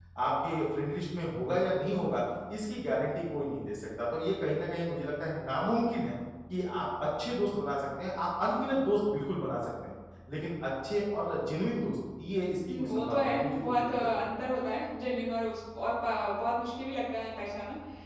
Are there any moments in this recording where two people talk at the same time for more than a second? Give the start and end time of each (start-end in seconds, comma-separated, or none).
12.8-14.4